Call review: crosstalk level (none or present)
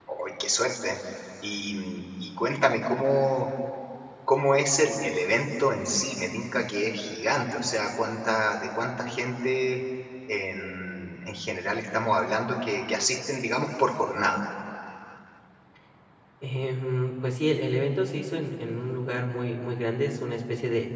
none